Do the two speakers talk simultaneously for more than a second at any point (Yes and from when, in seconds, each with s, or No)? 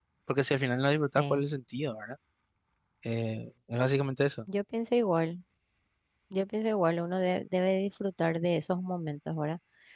No